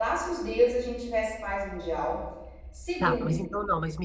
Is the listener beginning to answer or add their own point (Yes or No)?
Yes